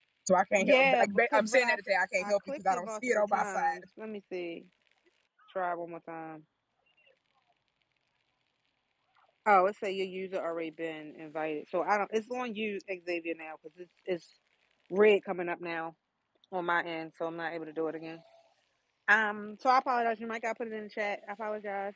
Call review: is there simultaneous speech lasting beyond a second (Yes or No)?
Yes